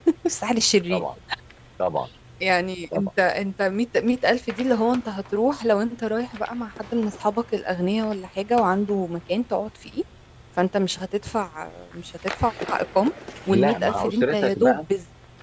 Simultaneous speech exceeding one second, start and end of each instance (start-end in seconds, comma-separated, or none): 13.5-14.8